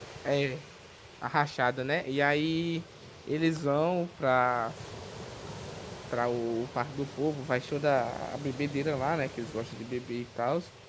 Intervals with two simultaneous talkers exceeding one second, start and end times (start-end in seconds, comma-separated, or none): none